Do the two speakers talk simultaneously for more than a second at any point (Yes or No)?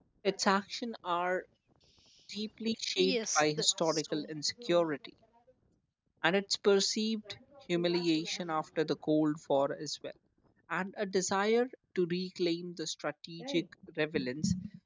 Yes